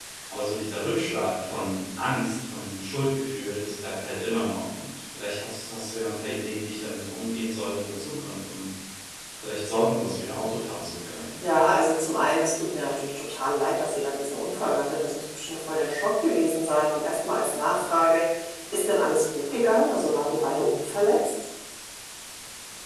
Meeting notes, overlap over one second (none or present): none